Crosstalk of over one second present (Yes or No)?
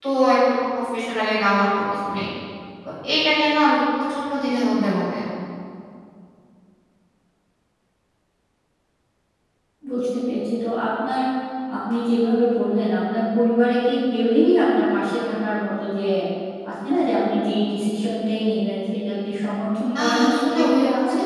Yes